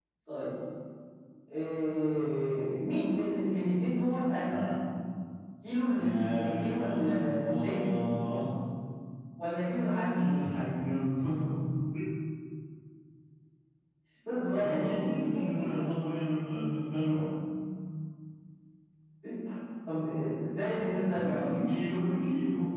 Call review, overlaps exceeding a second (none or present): present